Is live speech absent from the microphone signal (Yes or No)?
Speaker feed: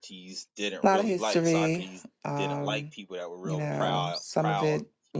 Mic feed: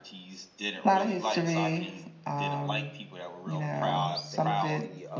No